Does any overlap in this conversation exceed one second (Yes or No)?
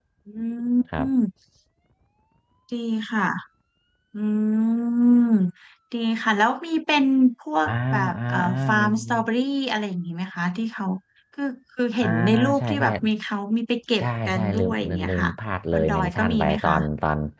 Yes